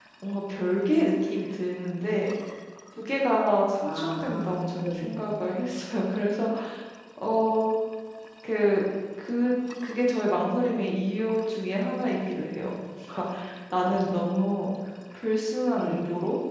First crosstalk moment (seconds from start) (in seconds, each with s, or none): 3.8 s